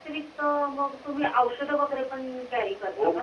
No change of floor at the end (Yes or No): No